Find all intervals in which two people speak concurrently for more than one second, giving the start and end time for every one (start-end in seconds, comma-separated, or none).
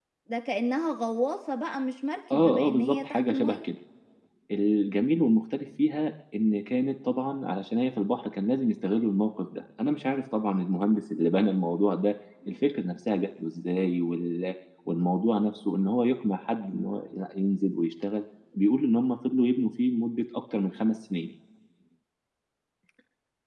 2.3-3.6